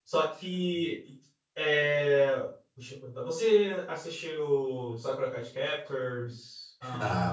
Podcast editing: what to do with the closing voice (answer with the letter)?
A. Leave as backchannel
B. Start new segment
B